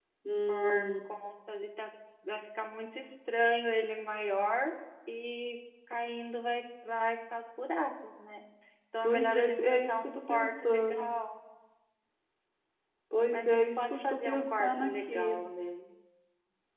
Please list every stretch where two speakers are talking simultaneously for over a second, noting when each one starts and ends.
9.0-11.1, 13.3-15.4

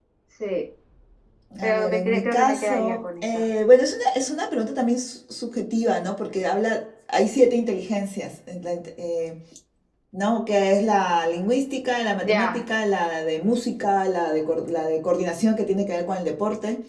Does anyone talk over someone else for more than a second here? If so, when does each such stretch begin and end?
1.6-3.4

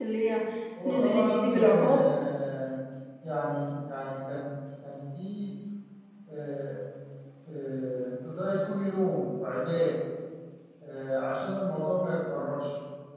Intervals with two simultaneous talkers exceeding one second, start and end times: 0.8-2.1

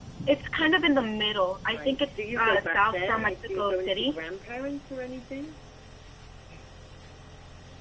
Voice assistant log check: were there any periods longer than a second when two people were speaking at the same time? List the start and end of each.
1.6-4.2

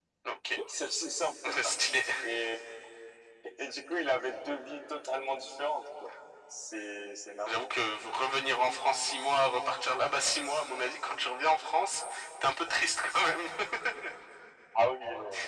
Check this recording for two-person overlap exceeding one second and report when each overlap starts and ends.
none

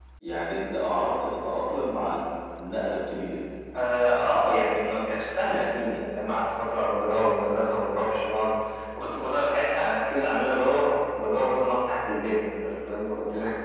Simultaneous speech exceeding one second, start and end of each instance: none

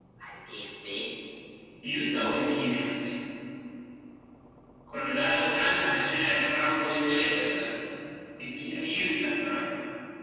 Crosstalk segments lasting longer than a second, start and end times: 6.1-7.7

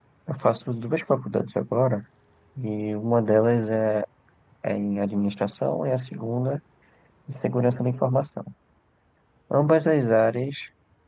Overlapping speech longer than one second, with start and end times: none

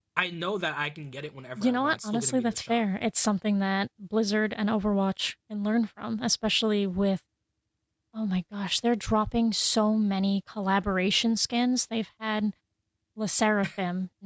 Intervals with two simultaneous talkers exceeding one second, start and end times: 1.6-2.8

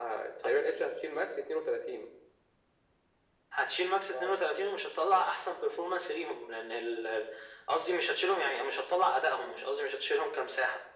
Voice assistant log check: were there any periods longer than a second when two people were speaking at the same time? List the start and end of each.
none

